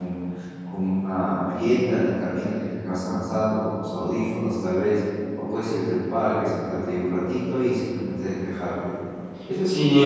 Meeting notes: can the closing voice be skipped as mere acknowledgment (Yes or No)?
No